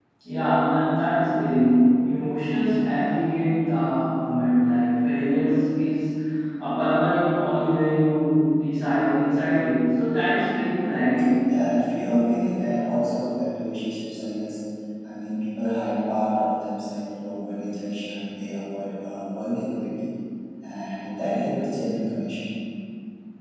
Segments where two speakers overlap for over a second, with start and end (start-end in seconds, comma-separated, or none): none